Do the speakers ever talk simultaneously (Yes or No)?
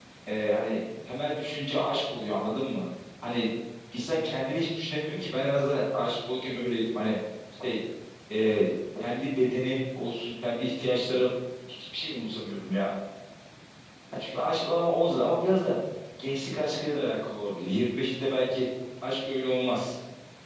No